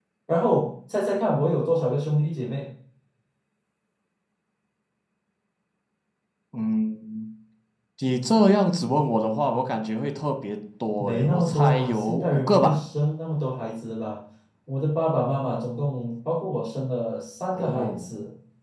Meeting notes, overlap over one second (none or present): present